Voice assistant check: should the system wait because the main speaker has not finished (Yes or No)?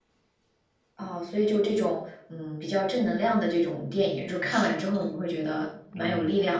No